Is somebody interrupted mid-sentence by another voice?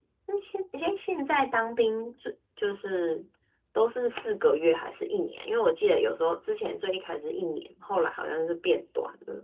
No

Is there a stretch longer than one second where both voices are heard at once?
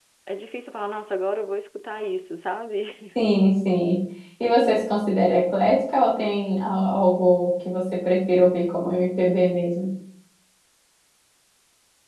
No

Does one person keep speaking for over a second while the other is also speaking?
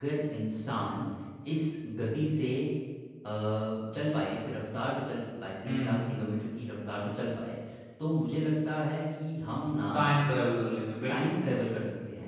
No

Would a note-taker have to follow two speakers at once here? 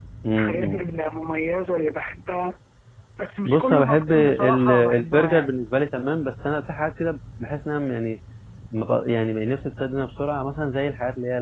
Yes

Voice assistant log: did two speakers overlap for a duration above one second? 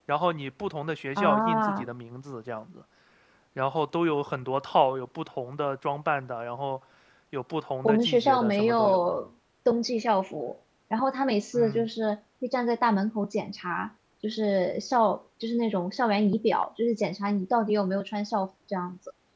Yes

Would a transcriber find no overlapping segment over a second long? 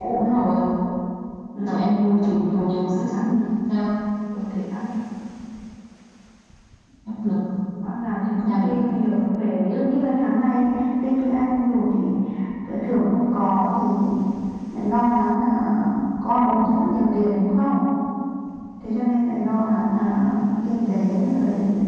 No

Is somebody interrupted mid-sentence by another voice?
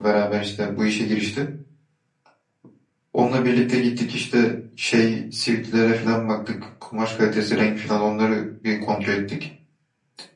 No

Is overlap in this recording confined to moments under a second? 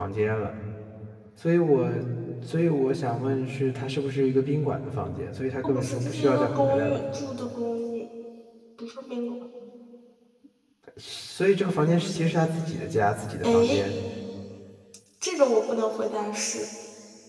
No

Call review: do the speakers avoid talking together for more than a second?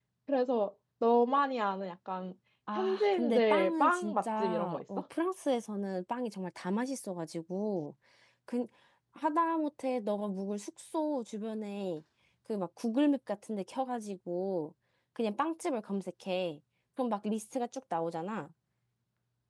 No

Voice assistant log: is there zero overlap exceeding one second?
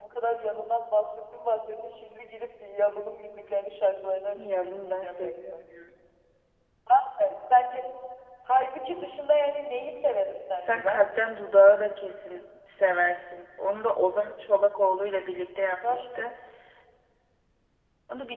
No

